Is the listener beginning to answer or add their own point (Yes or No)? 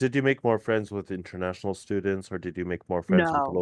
Yes